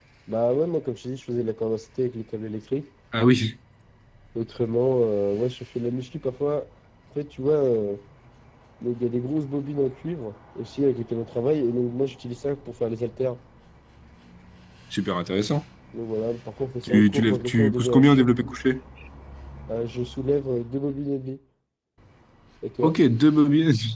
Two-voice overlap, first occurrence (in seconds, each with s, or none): 16.8 s